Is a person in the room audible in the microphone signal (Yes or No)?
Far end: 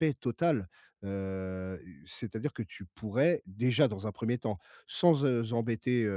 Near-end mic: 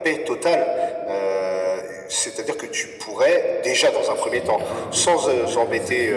Yes